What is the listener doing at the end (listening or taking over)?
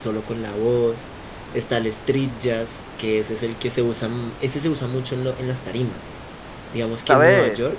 listening